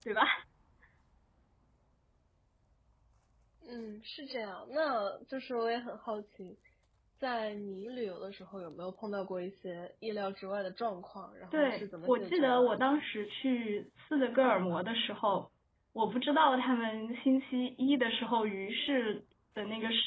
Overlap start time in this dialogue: 11.5 s

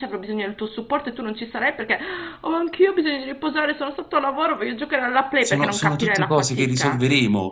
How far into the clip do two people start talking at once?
5.4 s

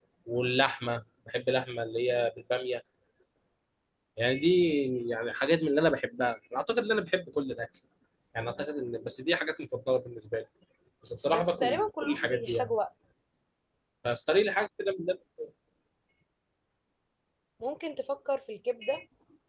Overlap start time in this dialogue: 11.3 s

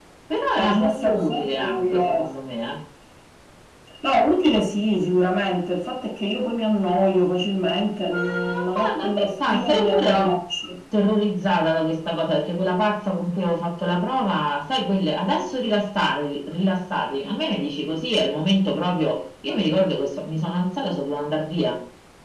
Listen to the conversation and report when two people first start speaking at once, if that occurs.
0.6 s

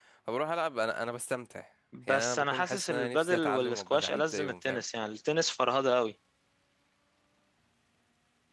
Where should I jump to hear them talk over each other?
2.1 s

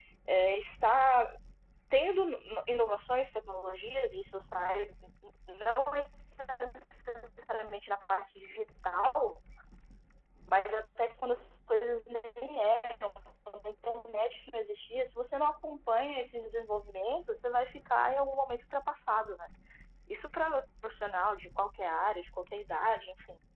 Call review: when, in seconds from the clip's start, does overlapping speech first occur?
none

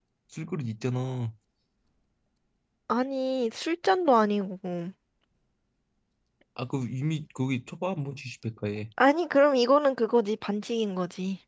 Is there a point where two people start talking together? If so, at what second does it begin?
none

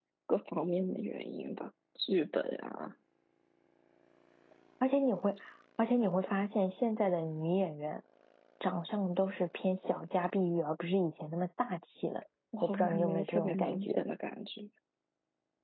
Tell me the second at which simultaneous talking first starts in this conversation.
12.5 s

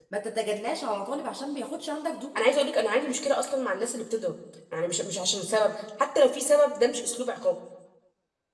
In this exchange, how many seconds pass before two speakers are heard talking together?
none

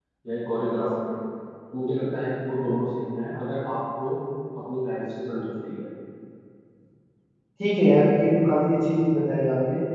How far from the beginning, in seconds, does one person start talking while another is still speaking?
none

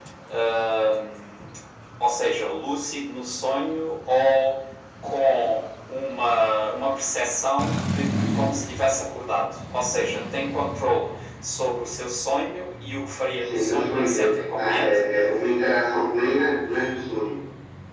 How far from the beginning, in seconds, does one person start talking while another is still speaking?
13.4 s

